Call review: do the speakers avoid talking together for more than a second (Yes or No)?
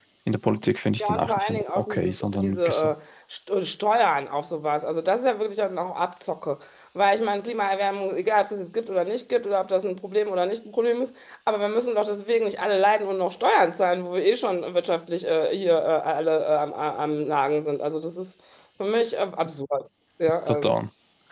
No